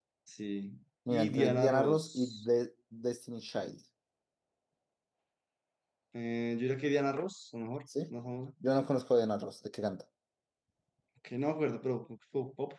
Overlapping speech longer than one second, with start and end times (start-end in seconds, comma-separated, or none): 1.1-2.5